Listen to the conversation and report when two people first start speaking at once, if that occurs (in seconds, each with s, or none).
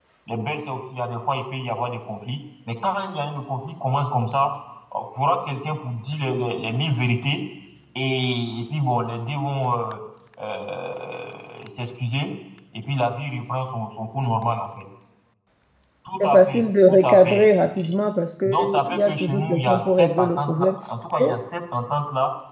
16.2 s